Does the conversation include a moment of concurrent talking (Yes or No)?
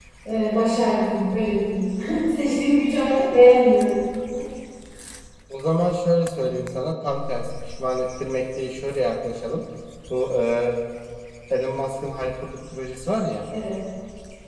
No